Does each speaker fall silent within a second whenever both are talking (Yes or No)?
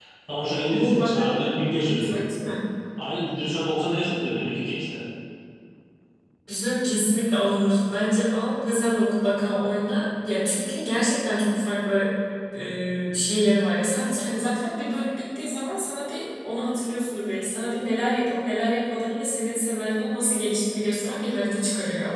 No